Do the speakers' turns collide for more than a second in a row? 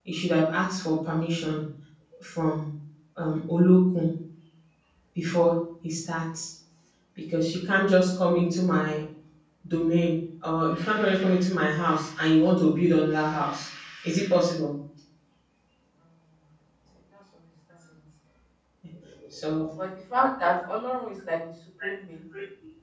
No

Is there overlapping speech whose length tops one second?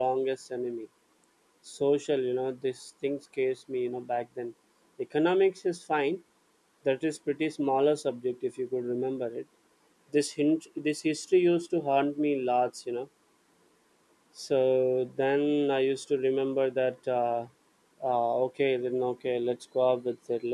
No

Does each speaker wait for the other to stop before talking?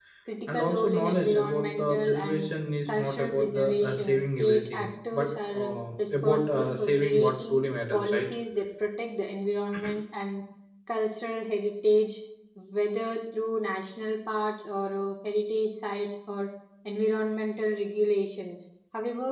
No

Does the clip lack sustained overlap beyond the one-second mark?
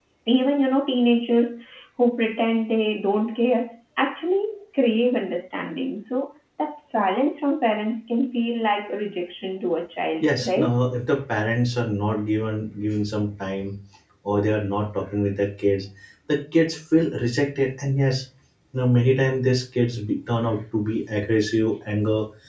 Yes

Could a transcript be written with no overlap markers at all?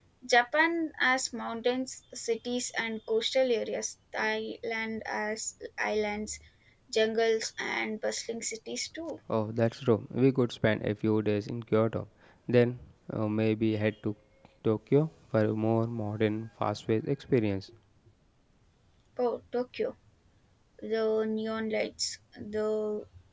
Yes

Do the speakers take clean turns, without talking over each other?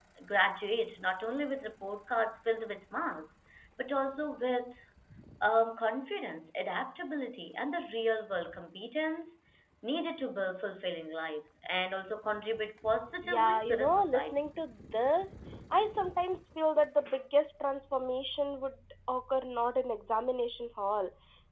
No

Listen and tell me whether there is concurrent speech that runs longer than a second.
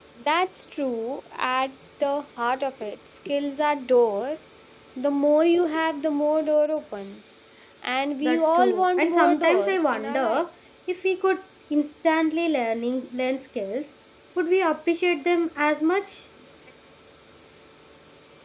Yes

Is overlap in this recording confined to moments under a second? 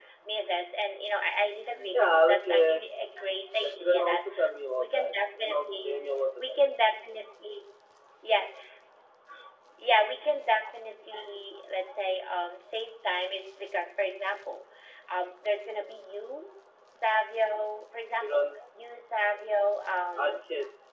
No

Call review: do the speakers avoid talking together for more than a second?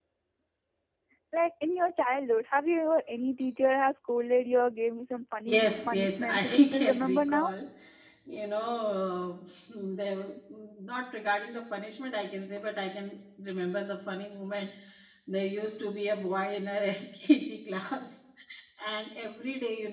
No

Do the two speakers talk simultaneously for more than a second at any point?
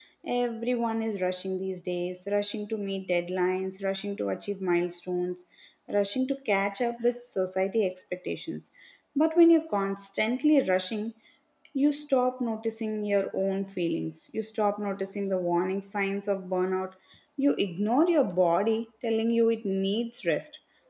No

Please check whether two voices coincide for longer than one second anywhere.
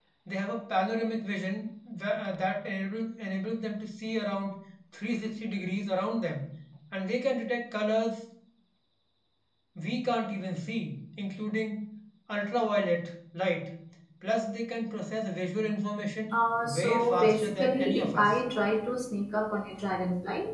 Yes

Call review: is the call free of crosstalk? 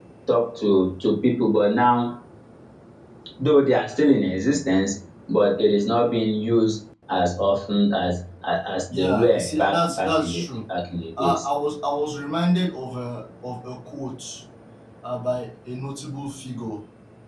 No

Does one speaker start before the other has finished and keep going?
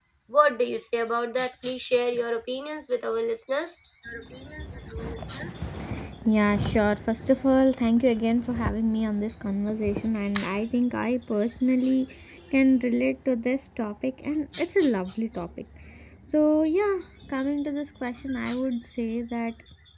No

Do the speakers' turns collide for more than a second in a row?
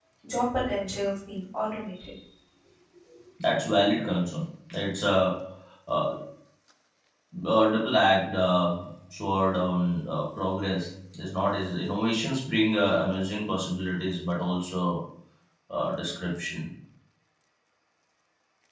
No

